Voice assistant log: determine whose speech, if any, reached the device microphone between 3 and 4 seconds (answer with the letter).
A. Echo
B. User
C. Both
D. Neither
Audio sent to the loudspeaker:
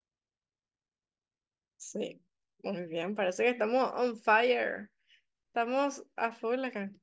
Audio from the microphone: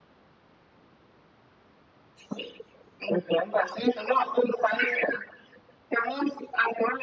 A